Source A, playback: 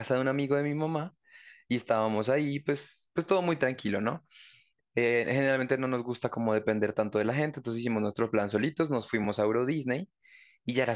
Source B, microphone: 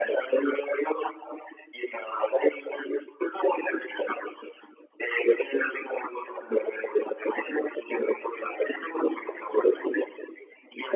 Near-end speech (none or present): none